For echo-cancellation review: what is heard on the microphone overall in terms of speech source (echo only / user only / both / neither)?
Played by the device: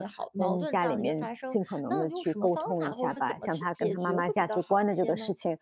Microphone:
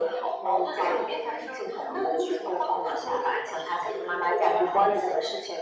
echo only